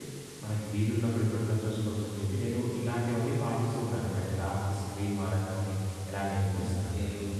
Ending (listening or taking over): taking over